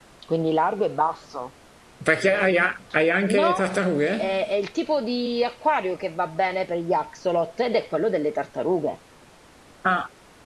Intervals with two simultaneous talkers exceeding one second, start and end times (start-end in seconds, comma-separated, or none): none